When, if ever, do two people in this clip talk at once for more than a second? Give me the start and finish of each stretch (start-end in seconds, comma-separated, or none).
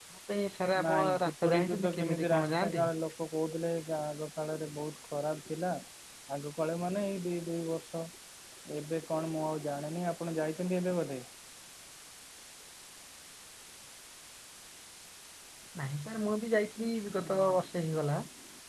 0.8-2.8